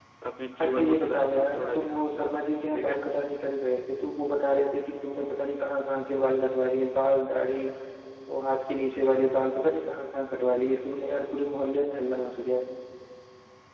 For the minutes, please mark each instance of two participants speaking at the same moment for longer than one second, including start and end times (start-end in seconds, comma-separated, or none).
0.6-2.2